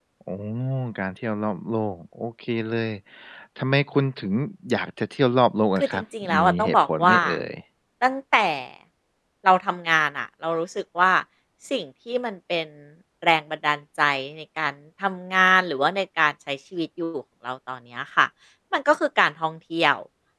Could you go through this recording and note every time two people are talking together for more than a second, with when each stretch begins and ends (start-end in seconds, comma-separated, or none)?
5.8-7.2